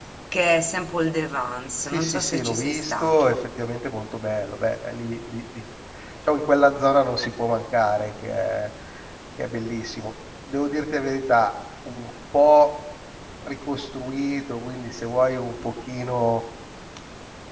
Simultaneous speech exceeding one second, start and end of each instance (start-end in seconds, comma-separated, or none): 1.8-3.4